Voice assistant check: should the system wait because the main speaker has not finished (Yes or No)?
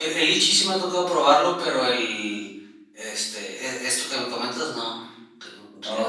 No